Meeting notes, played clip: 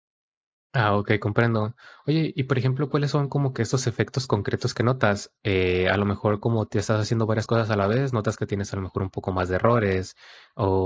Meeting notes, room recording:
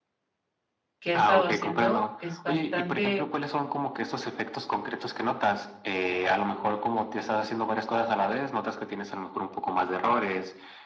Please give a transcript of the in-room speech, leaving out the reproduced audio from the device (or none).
que he estado haciendo es bastante